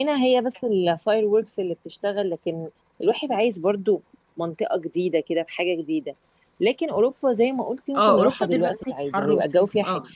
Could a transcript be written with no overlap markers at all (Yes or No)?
No